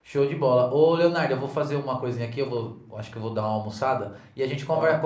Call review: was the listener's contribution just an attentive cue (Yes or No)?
Yes